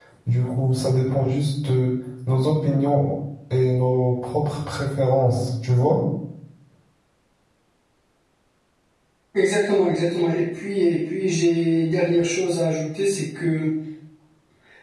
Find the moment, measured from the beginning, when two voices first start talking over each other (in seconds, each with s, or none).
none